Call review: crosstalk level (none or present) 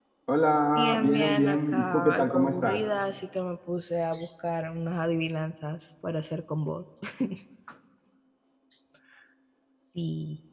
present